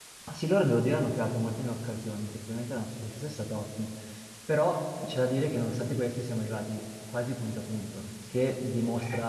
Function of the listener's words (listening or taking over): listening